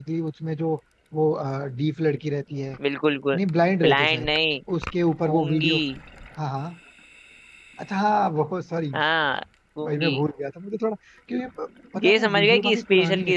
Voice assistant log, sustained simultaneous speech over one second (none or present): present